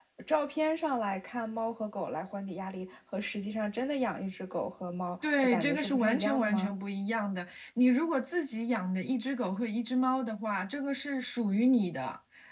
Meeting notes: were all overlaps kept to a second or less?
No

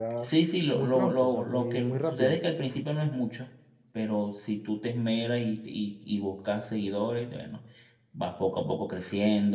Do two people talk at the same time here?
Yes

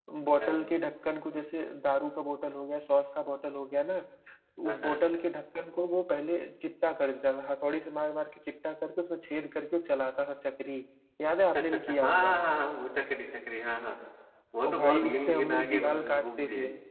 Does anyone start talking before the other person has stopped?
Yes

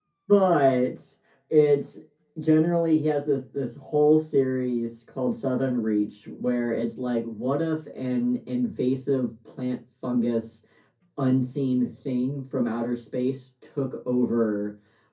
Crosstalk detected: No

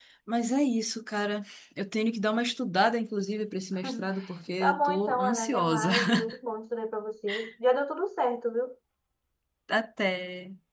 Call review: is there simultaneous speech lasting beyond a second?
Yes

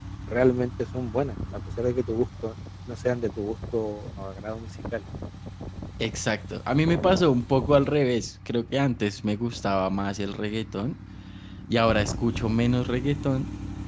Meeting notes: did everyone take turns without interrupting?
Yes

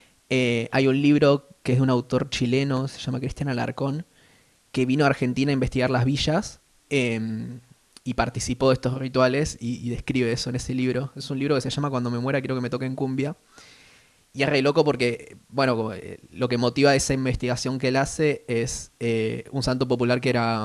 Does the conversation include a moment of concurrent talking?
No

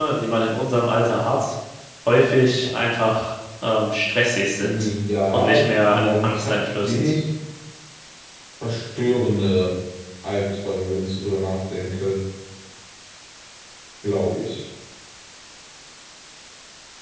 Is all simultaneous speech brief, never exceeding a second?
No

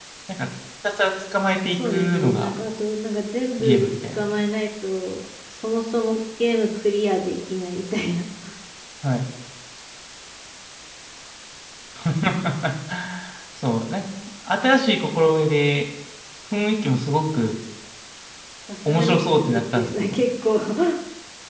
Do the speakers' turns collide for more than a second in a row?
Yes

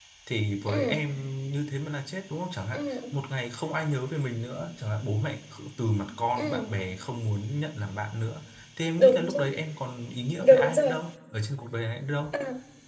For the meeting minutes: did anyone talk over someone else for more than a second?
No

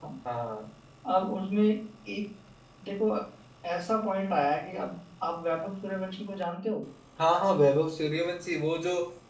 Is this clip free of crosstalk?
Yes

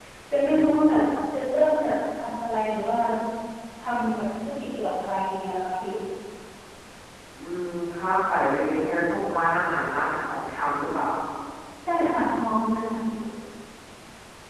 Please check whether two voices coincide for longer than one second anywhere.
No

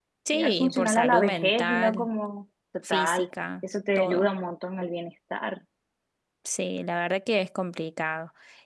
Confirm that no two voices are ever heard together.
No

